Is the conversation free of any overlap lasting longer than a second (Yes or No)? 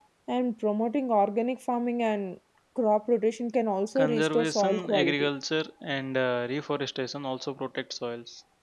No